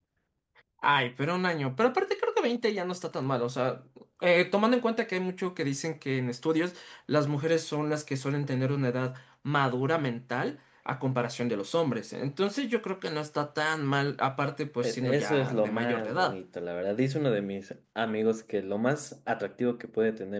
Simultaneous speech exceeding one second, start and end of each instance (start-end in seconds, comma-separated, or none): 14.8-16.4